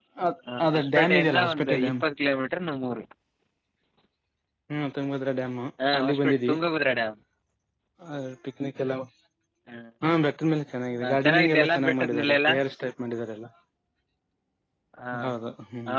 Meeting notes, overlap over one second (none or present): present